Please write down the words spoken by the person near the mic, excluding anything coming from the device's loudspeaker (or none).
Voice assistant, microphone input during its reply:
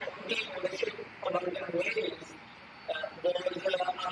none